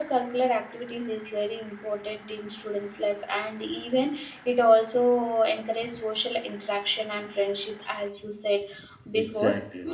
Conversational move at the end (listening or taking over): listening